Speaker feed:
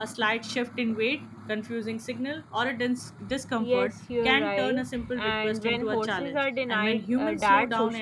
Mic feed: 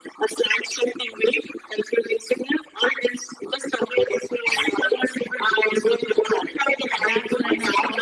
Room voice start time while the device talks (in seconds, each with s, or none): 7.0 s